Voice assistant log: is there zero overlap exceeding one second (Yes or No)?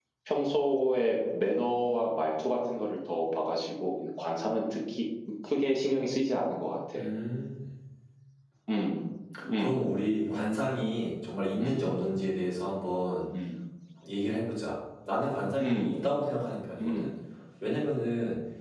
Yes